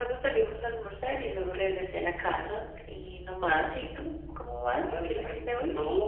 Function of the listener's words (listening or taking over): taking over